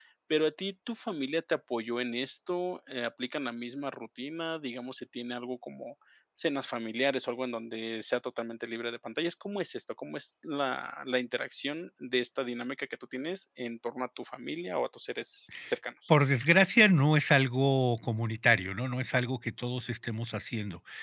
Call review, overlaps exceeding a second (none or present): none